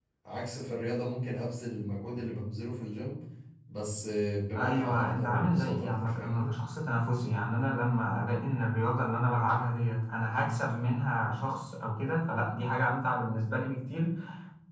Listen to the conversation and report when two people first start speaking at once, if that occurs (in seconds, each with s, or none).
4.6 s